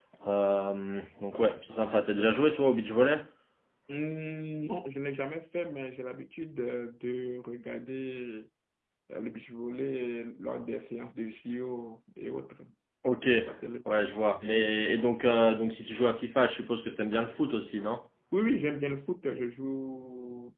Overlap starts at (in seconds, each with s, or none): none